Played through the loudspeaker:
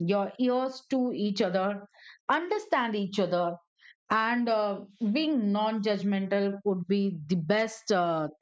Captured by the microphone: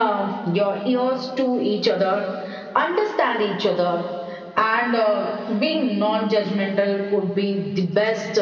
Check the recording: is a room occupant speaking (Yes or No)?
No